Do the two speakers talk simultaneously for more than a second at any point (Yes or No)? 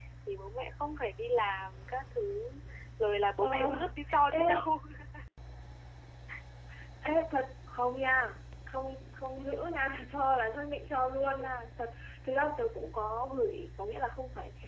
No